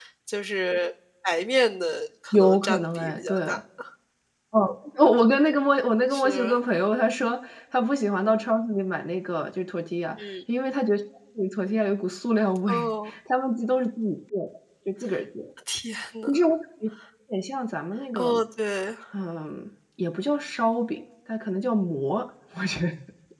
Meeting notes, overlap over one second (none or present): present